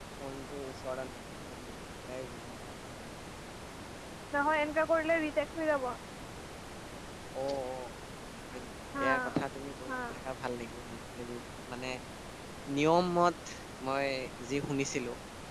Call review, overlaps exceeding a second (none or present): none